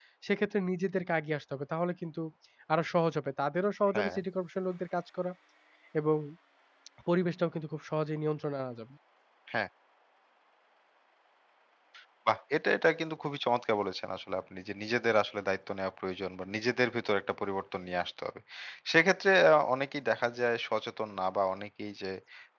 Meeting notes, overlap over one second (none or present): none